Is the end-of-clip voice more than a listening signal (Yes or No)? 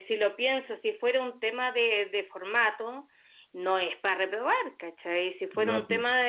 No